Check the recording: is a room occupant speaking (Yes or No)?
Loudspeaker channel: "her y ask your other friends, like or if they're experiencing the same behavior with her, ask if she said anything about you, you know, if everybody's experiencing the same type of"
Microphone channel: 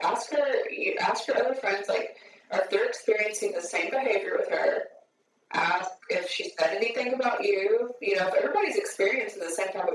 No